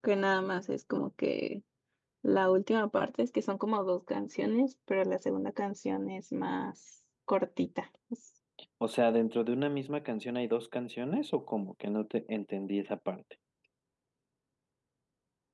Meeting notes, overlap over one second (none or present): none